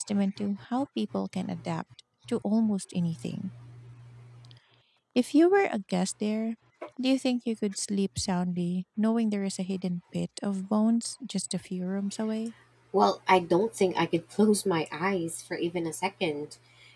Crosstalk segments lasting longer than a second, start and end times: none

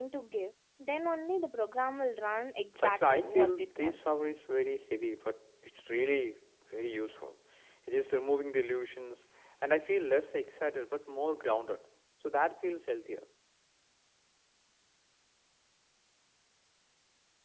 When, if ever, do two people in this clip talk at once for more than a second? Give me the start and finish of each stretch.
2.8-4.1

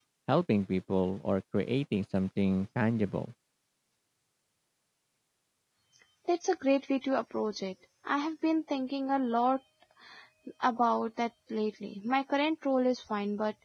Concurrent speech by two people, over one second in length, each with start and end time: none

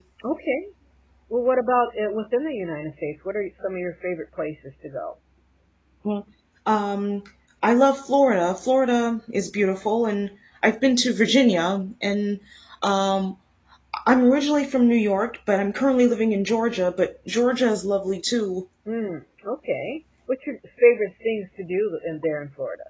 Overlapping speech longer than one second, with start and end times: none

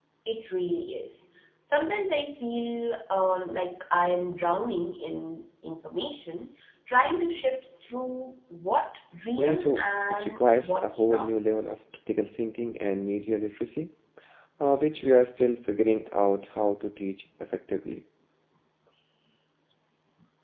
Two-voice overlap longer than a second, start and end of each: 9.4-11.3

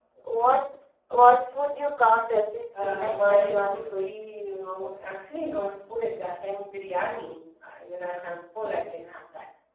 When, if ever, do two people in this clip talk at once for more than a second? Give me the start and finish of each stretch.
2.8-4.1

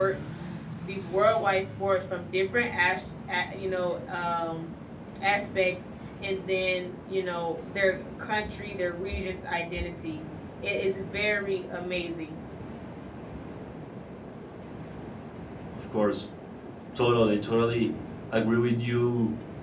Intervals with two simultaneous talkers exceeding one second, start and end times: none

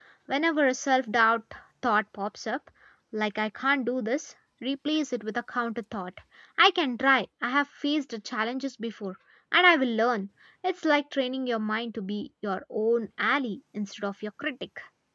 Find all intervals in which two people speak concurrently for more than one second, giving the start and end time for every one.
none

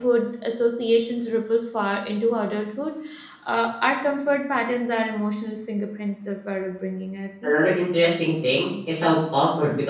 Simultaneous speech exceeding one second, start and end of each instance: none

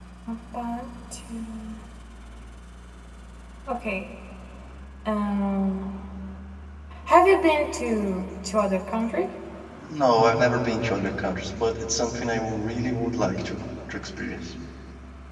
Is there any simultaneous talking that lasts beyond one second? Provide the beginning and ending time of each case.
none

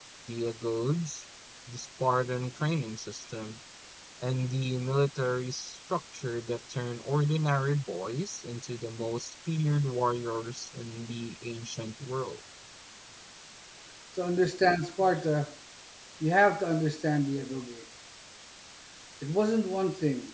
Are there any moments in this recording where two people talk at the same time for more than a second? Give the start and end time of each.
none

